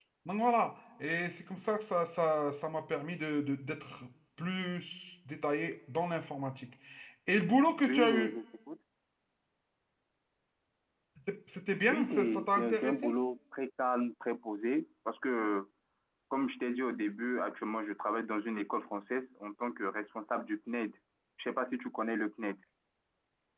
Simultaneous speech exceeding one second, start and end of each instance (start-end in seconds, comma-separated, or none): 11.9-13.2